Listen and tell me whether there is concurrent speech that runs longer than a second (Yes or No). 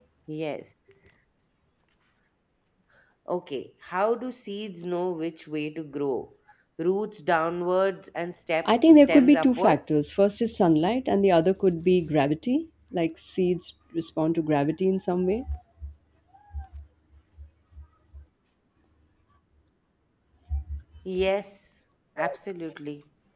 Yes